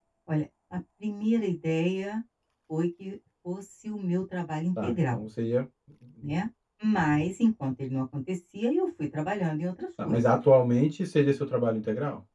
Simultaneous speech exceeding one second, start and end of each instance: none

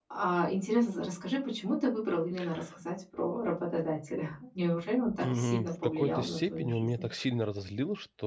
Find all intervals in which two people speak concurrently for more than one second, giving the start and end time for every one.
5.3-6.9

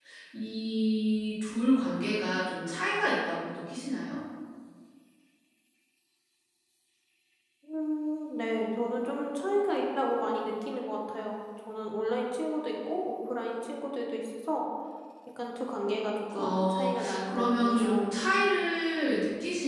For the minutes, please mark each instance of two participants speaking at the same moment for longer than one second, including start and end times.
16.4-18.0

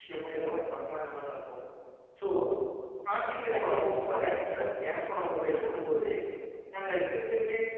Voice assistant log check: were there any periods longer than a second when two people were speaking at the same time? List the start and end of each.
3.5-5.1

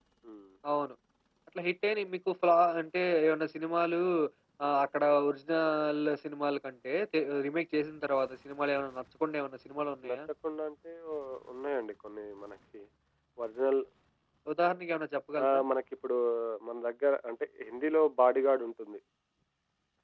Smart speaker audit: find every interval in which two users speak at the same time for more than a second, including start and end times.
none

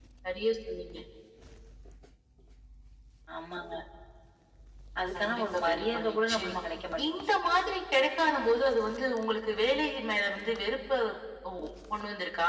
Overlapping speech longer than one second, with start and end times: 5.2-6.5

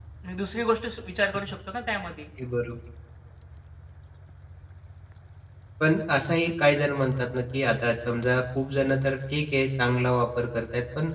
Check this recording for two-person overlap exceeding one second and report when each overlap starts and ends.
none

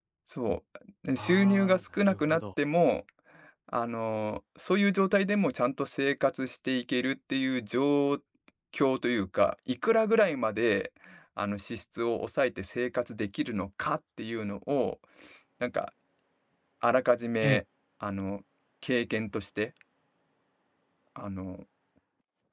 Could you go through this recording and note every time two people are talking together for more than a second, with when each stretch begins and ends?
1.2-2.4

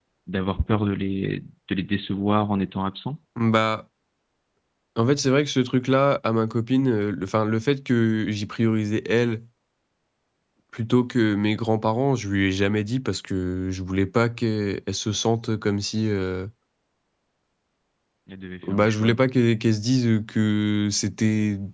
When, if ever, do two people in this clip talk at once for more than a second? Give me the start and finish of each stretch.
none

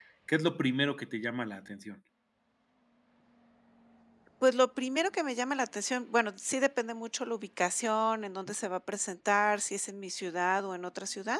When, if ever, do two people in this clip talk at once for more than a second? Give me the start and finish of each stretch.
none

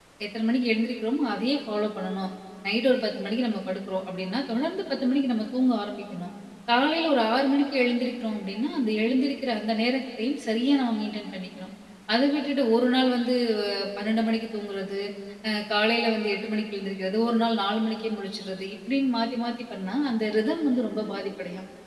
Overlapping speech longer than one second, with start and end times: none

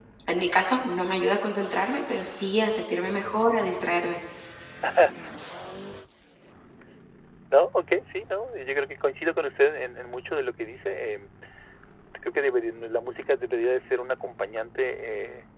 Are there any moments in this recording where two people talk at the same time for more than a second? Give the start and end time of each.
none

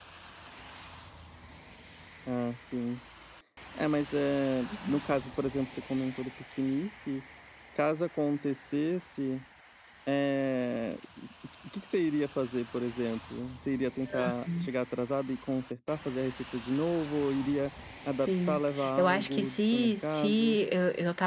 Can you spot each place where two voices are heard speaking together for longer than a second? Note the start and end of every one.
18.3-20.6

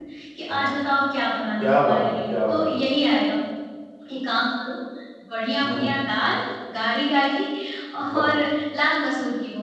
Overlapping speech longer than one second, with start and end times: 1.6-2.8

